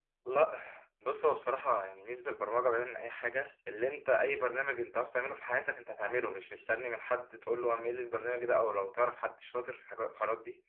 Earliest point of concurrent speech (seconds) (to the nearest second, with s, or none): none